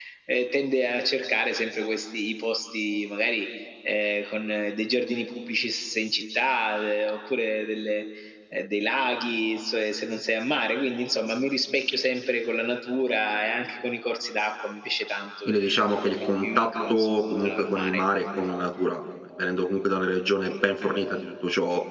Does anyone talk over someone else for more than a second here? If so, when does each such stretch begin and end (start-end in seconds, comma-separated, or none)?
15.5-18.0